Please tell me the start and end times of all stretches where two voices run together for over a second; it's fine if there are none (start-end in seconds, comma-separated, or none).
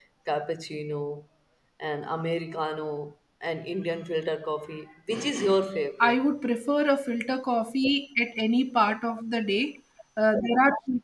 none